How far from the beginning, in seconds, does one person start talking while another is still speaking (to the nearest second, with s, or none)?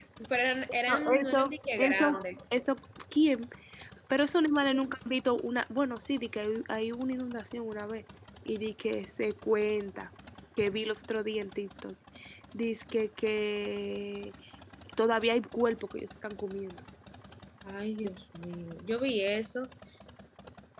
1 s